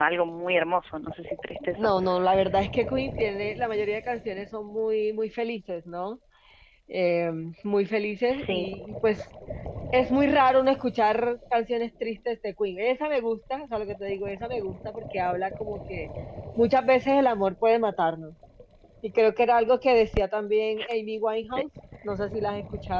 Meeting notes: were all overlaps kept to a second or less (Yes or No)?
Yes